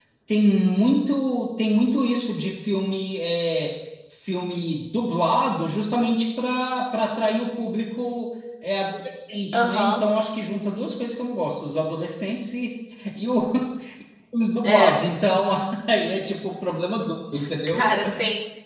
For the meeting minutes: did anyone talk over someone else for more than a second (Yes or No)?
No